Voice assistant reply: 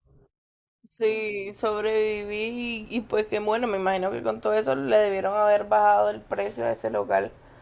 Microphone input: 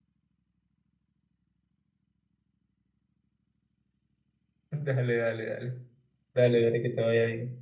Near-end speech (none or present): present